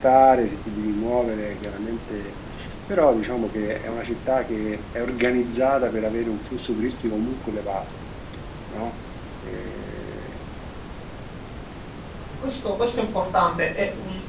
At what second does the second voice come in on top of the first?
none

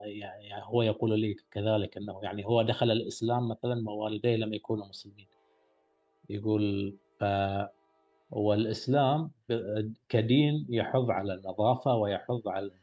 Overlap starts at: none

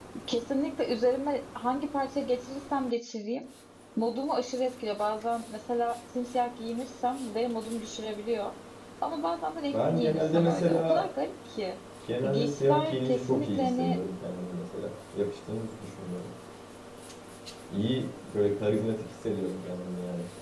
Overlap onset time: 10 s

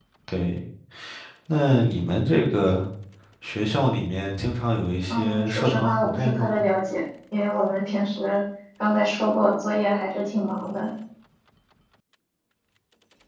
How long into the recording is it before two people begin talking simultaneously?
5 s

